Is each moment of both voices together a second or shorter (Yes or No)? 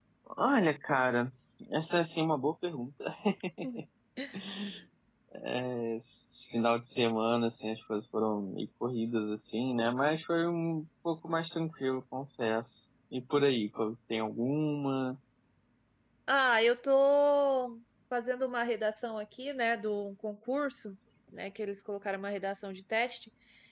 Yes